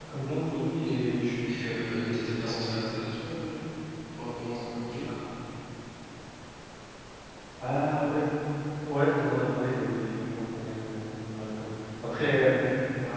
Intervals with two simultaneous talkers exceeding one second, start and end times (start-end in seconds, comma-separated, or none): 1.4-2.7